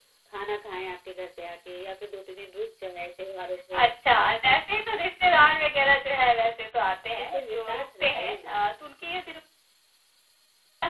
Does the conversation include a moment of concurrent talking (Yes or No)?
Yes